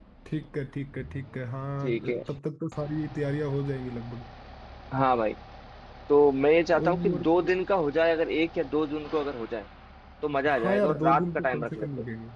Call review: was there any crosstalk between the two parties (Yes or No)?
Yes